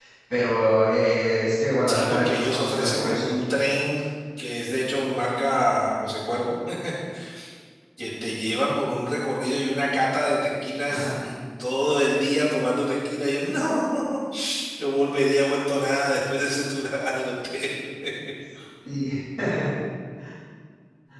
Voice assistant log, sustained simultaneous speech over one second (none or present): present